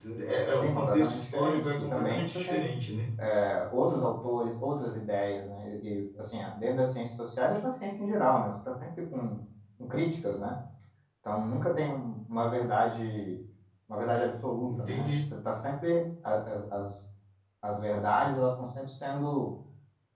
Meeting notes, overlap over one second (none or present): present